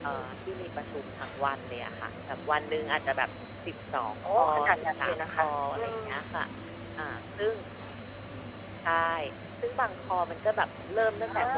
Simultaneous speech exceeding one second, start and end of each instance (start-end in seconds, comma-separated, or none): 4.2-6.0